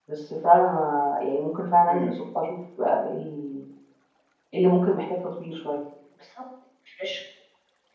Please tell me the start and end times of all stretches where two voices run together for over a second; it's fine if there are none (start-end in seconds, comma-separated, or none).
none